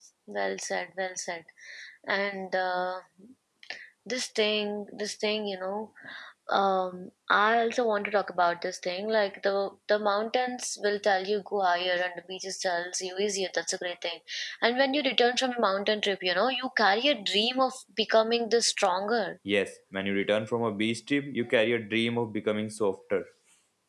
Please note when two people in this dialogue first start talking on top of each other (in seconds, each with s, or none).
none